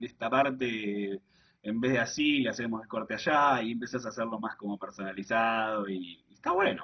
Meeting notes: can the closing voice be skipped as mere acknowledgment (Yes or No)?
No